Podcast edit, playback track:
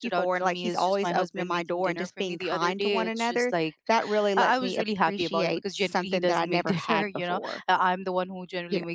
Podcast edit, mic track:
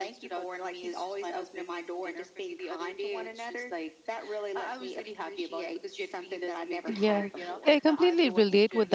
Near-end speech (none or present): present